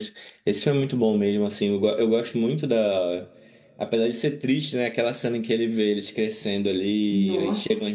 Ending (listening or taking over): listening